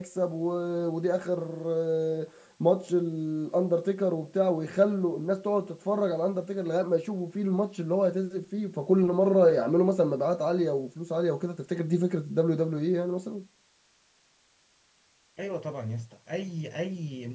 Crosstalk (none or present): none